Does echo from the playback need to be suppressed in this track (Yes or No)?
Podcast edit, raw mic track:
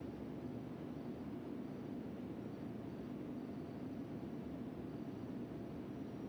No